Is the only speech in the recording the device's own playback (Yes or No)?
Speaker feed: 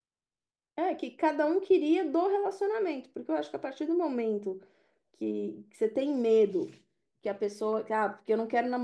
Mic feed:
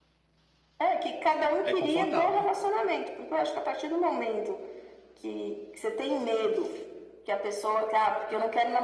No